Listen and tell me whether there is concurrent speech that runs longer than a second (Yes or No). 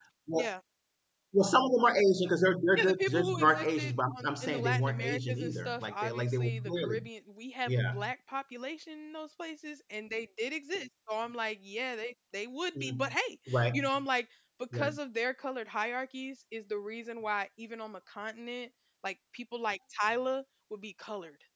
Yes